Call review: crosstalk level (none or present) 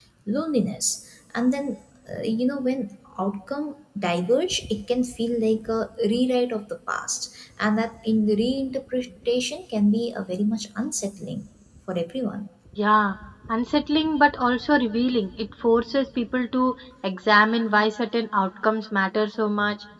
none